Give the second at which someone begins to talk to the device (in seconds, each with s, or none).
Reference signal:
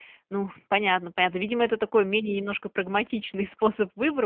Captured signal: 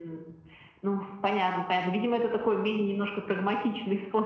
none